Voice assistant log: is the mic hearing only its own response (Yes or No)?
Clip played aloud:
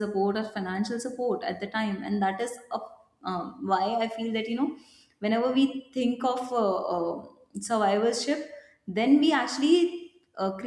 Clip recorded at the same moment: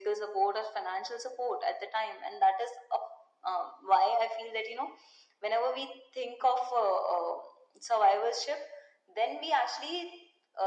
Yes